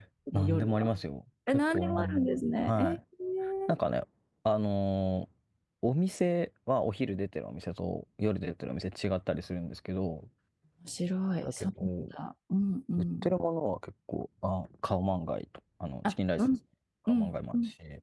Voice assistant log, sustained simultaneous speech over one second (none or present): present